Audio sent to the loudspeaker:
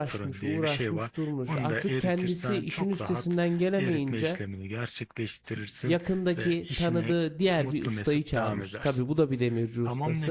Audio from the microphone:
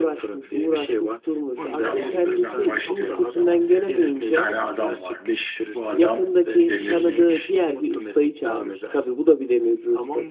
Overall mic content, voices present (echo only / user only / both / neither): both